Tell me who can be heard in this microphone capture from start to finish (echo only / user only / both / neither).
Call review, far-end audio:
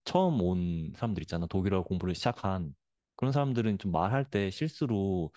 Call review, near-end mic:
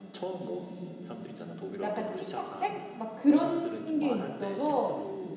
both